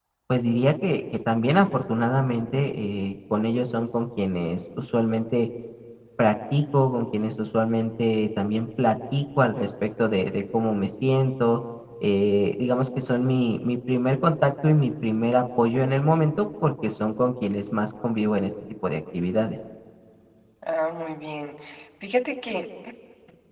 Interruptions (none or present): none